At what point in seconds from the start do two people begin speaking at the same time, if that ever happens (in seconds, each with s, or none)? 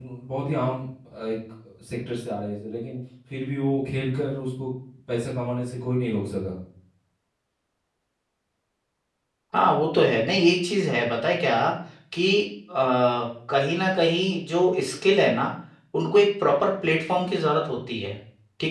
none